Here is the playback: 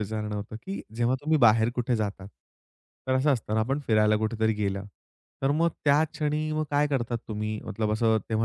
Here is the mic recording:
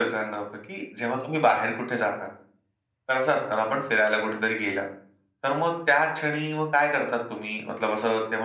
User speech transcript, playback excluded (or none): none